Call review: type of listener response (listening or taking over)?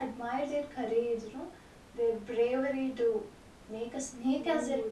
taking over